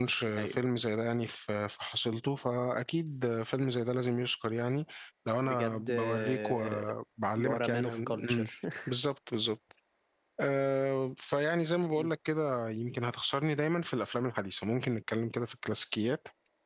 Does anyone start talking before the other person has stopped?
Yes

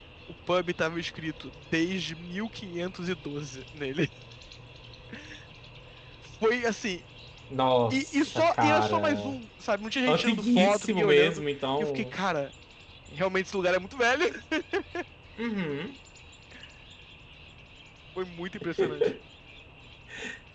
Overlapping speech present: Yes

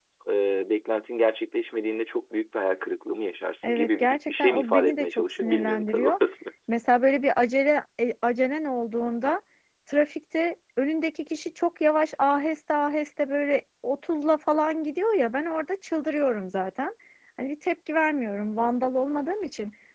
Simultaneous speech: Yes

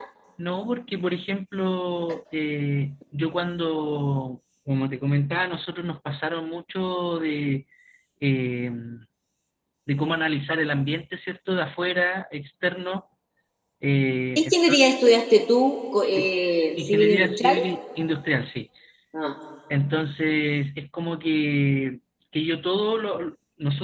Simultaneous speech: Yes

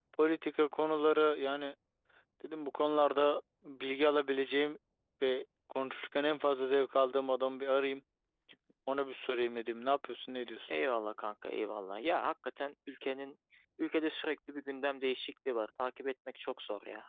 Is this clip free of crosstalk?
Yes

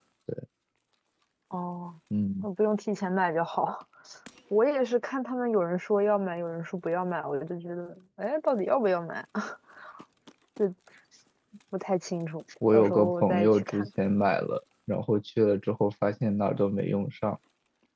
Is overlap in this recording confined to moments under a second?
No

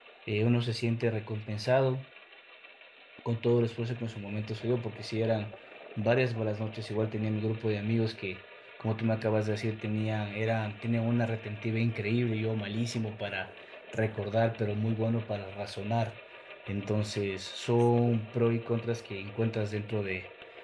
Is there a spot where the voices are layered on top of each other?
No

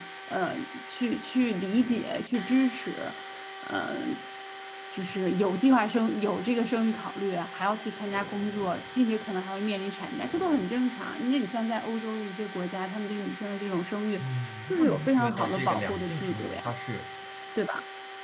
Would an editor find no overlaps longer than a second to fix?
No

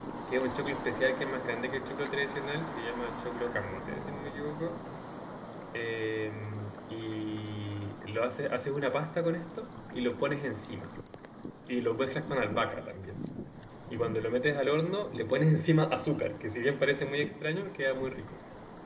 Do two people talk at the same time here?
No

